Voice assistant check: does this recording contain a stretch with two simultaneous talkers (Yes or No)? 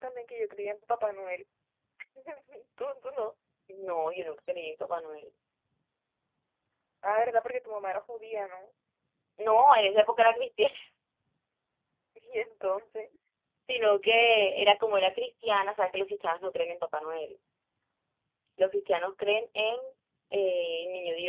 No